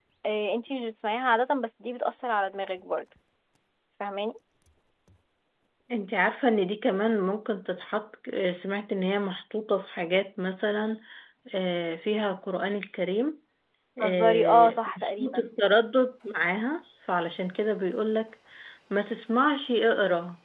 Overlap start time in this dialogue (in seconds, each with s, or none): 14.0 s